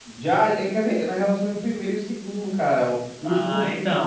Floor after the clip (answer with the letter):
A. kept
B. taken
B